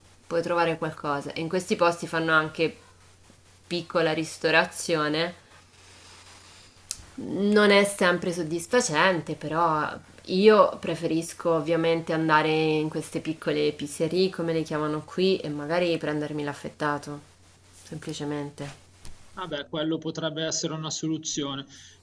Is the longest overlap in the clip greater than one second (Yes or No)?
No